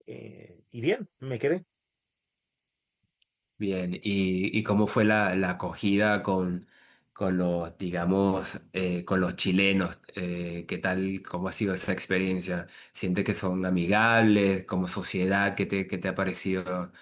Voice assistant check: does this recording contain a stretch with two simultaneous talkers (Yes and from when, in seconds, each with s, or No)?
No